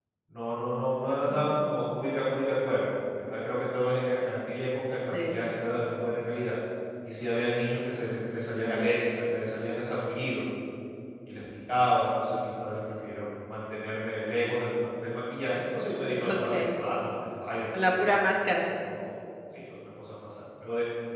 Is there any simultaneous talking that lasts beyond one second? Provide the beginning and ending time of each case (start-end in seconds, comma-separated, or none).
none